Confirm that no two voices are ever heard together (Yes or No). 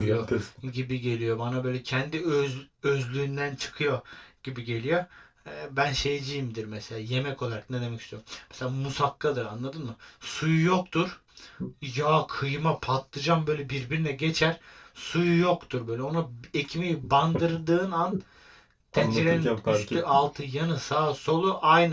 No